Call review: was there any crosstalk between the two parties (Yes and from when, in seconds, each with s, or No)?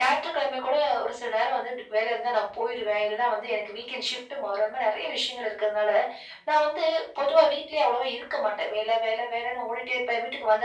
No